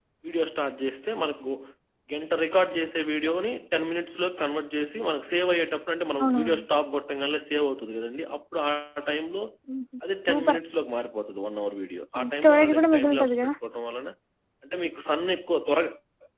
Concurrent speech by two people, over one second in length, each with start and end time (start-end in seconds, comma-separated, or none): 12.2-13.5